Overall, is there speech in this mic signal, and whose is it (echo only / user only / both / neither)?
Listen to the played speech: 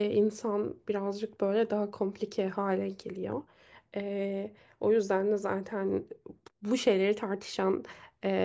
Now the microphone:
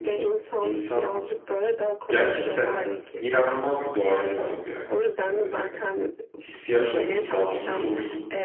both